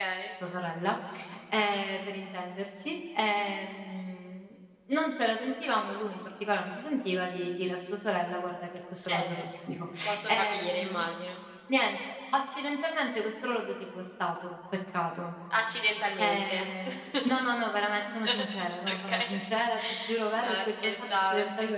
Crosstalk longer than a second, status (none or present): present